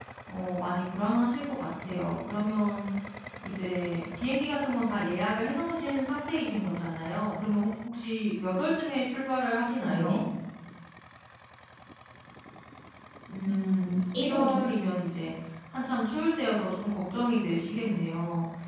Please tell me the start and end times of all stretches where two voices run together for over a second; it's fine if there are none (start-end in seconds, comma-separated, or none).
13.5-14.7